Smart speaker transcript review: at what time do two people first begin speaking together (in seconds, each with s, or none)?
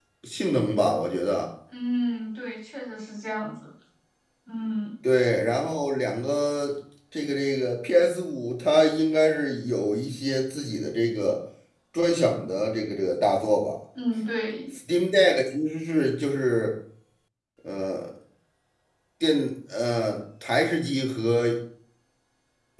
none